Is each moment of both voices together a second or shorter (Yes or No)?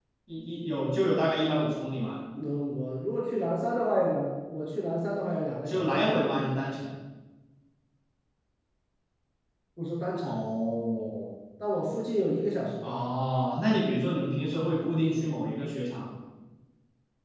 Yes